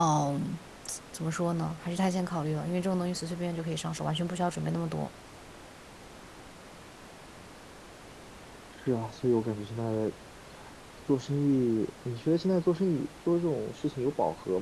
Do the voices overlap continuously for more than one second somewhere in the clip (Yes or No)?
No